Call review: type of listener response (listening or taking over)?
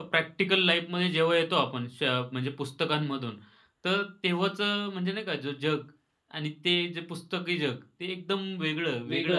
taking over